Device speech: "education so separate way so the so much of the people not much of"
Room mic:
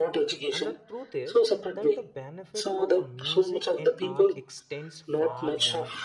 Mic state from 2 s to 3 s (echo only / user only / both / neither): both